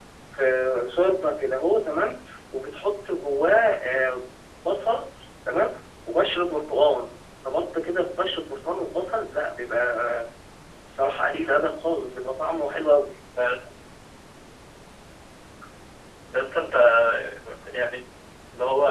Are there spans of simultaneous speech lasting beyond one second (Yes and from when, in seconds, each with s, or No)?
No